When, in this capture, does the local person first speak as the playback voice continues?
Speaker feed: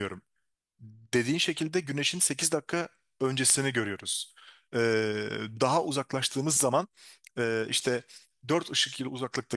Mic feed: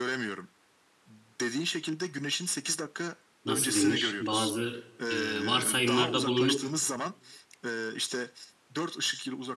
3 s

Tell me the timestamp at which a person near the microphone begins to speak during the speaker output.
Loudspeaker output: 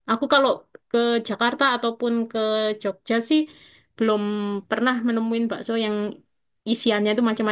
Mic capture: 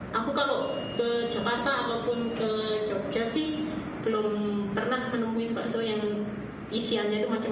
none

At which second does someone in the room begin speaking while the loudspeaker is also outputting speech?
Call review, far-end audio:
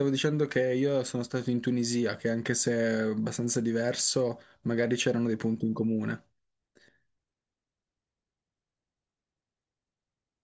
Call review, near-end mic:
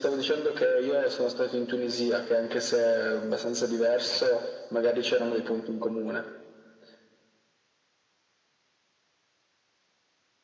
none

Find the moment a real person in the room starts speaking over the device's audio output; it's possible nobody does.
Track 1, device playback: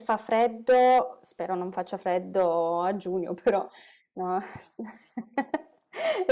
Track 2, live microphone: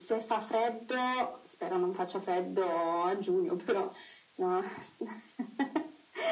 none

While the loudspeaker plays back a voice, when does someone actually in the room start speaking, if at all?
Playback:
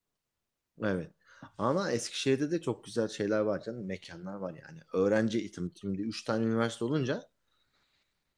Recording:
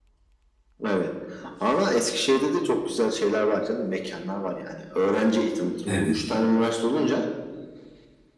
6 s

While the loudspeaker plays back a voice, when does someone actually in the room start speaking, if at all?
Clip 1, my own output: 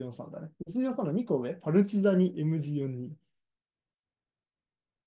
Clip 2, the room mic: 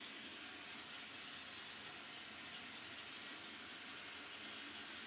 none

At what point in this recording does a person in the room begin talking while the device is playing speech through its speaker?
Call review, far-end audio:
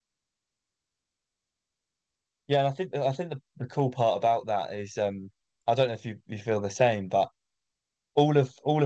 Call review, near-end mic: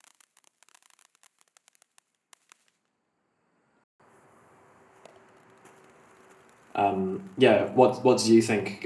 7 s

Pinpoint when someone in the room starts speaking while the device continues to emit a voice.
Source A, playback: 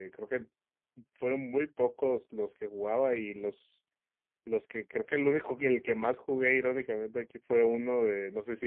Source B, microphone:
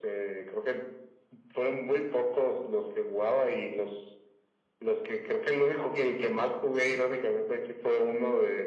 none

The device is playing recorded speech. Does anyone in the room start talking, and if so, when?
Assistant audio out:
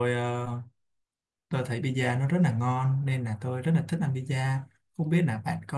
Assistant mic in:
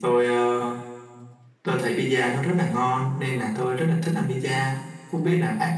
none

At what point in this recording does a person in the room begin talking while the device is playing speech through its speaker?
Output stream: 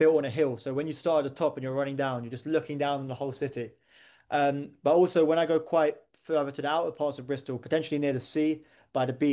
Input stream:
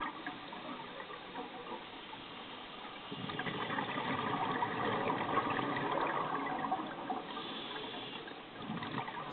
none

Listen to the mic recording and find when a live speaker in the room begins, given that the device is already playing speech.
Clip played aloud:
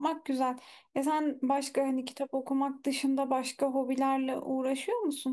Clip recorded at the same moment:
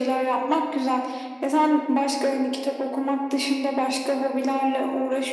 none

